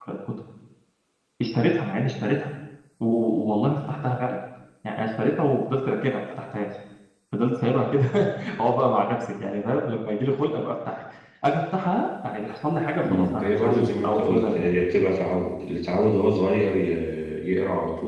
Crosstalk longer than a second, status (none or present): present